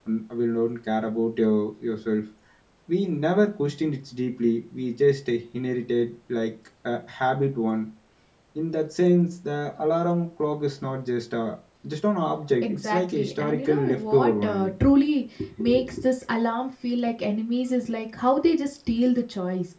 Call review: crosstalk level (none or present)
present